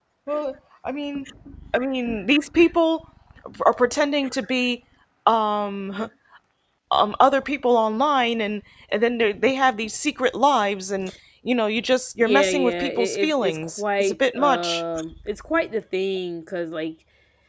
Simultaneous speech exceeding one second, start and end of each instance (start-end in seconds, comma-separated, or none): 12.2-14.8